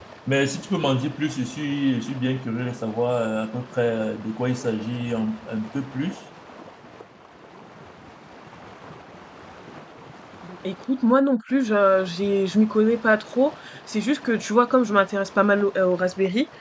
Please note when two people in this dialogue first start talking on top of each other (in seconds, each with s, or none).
none